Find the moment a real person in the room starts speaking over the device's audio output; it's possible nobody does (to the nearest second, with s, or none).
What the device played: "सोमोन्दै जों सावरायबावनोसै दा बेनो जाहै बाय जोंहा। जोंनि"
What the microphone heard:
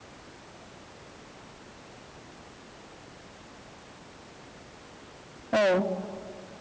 6 s